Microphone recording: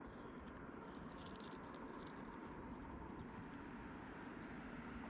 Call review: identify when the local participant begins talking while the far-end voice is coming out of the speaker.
none

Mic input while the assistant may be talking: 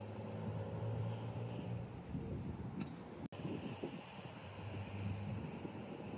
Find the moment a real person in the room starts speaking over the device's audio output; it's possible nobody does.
none

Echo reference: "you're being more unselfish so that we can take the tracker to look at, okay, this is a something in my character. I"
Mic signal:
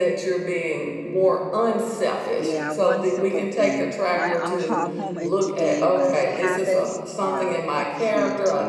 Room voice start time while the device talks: 2.4 s

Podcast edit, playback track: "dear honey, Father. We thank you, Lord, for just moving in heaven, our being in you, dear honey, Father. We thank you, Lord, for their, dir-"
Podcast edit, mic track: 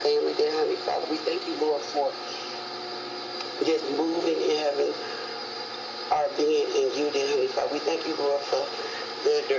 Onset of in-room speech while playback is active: none

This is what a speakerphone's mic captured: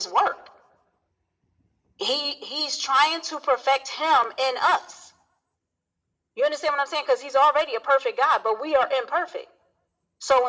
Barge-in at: none

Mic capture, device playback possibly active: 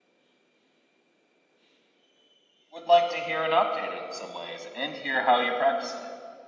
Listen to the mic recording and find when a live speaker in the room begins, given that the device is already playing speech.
2.7 s

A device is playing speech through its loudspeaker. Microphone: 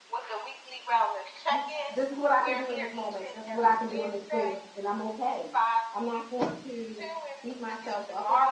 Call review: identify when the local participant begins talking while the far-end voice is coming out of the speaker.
1.5 s

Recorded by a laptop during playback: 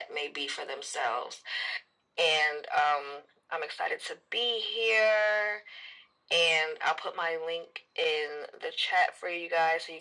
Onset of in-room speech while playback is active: none

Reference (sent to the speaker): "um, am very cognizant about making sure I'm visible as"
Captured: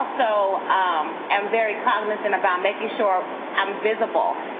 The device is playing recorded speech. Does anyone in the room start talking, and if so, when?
none

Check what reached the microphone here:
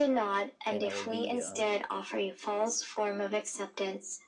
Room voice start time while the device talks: 0.7 s

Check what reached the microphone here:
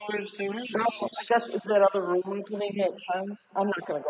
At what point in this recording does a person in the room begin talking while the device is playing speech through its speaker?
none

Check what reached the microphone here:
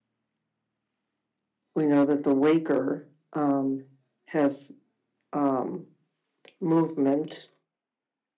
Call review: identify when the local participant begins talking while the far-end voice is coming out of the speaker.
1.7 s

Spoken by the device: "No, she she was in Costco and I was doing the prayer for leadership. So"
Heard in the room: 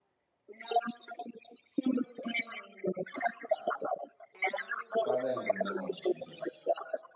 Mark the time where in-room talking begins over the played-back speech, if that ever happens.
5.0 s

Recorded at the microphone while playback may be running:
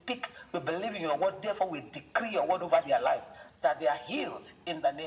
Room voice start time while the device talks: none

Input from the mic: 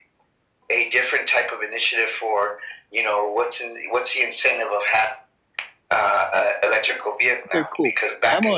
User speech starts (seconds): 7.5 s

